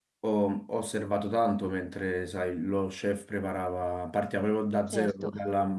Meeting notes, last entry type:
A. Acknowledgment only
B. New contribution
A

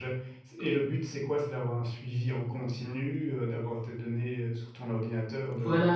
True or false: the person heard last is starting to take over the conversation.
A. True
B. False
A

